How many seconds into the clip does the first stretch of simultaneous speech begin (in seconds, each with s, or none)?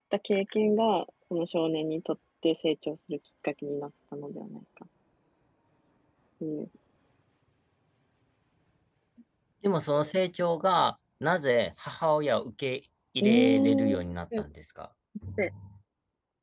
13.2 s